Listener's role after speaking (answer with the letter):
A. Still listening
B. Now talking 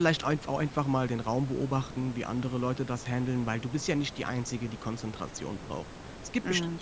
A